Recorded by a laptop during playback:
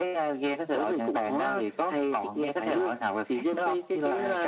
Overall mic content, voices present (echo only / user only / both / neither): echo only